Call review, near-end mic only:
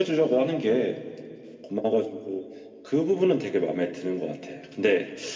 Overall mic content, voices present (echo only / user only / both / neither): echo only